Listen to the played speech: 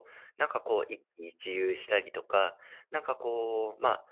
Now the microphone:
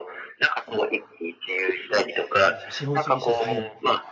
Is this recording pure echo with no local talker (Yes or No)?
No